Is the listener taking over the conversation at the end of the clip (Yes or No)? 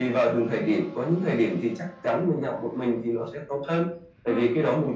No